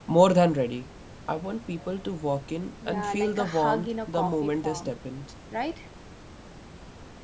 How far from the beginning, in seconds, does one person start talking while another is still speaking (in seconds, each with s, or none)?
2.8 s